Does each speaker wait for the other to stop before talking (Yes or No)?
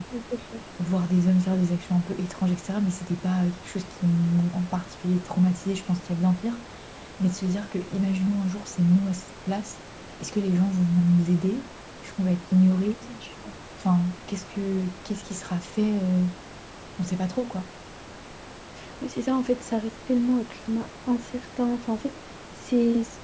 Yes